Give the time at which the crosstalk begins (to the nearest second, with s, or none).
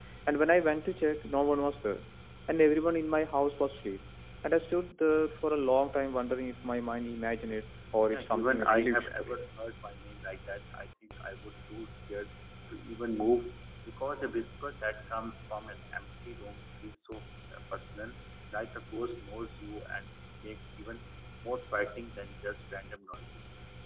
8 s